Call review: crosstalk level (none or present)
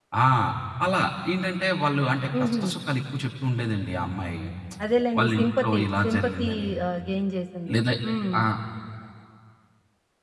present